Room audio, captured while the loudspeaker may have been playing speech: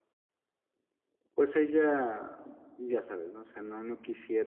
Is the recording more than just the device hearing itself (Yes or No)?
Yes